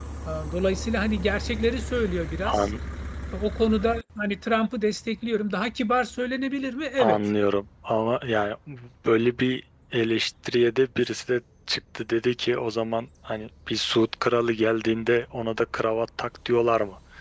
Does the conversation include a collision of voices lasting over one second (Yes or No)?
No